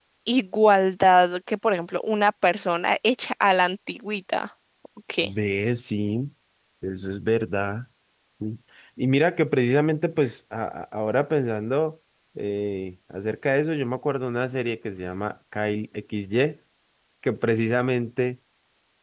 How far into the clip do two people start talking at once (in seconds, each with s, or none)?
none